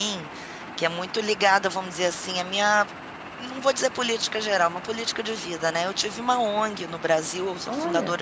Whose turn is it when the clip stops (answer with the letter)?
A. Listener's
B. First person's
B